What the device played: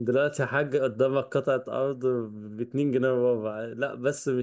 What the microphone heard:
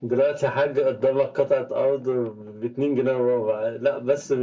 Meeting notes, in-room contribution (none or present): none